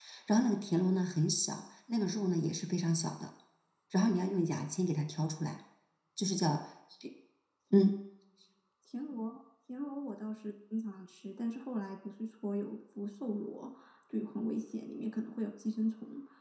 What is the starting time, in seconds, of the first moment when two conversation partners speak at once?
none

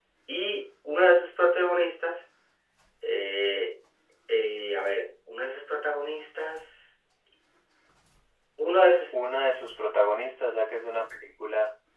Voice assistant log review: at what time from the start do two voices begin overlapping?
none

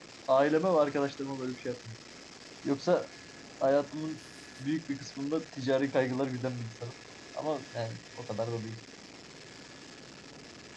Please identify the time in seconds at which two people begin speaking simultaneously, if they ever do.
none

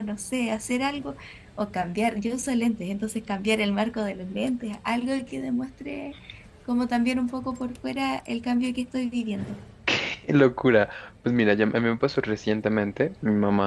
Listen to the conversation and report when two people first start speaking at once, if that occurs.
none

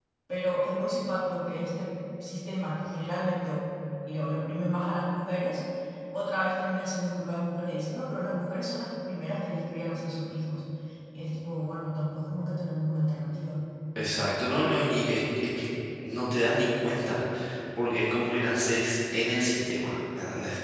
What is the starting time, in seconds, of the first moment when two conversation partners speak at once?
none

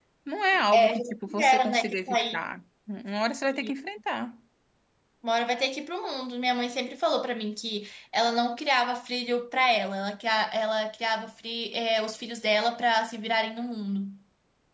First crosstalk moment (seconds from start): 1 s

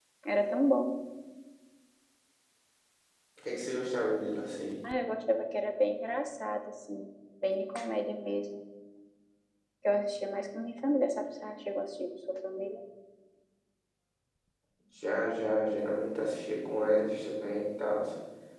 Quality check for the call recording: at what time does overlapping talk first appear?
none

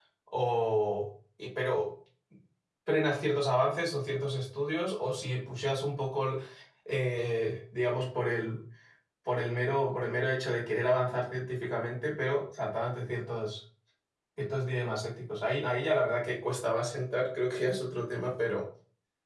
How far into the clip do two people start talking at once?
none

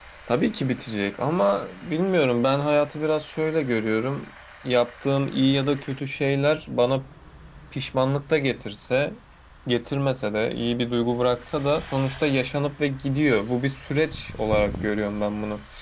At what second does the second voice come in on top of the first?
none

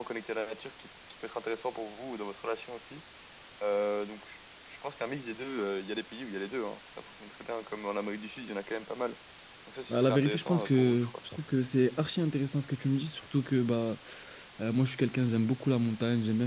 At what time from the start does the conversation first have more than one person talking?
10 s

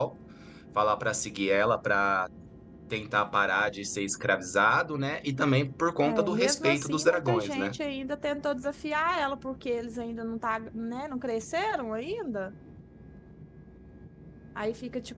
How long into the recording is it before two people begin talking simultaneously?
6 s

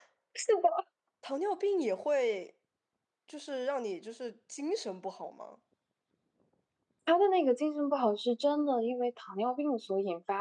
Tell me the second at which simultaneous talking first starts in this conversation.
none

